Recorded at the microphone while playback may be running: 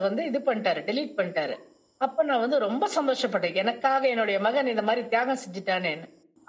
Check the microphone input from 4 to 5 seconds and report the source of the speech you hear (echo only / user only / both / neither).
echo only